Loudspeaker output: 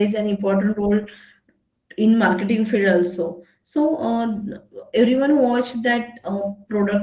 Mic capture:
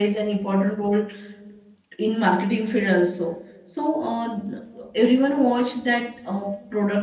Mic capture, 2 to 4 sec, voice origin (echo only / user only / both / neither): echo only